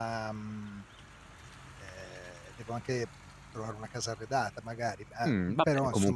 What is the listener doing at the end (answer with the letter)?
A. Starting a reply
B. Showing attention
A